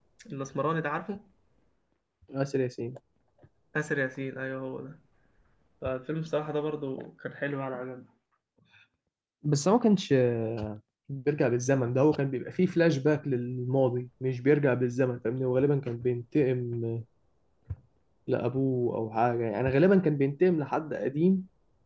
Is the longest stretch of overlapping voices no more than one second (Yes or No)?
Yes